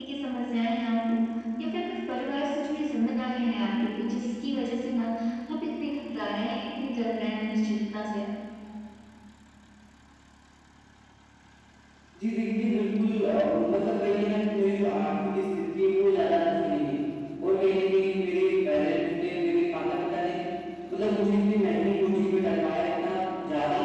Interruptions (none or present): none